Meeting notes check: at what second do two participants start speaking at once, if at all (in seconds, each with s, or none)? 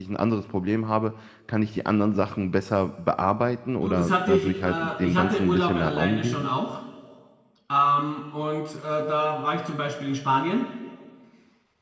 3.8 s